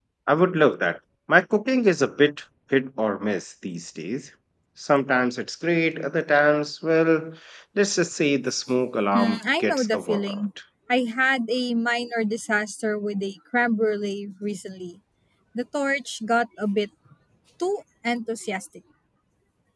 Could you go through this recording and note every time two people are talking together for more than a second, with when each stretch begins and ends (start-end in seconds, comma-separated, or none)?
9.1-10.4